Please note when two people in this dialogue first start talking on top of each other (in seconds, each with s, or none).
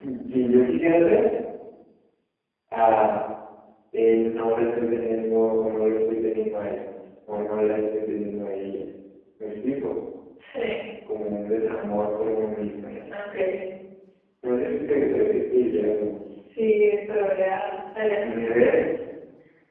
none